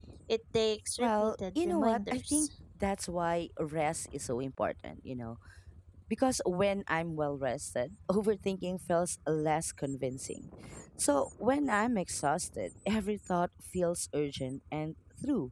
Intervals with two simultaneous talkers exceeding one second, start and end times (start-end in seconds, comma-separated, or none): 1.0-2.5